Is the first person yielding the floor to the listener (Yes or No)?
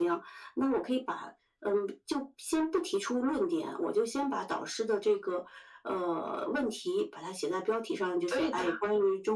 No